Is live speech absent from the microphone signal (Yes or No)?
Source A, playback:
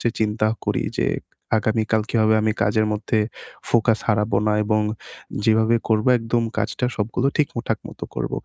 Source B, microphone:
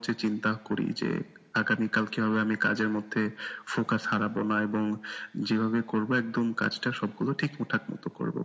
Yes